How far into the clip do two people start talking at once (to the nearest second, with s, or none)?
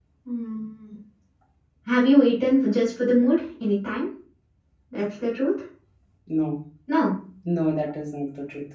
none